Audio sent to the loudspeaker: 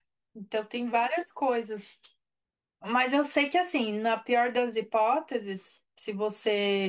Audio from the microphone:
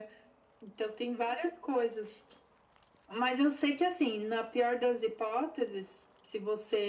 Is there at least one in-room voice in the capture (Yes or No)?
No